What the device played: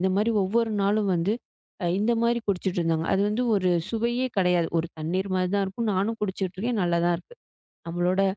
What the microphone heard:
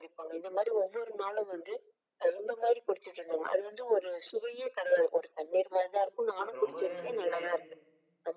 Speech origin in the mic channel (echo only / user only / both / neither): both